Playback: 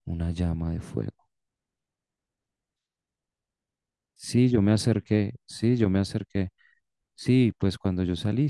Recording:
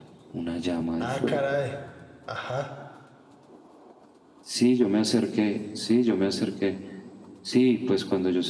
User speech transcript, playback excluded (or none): Ah, caray. Ajá.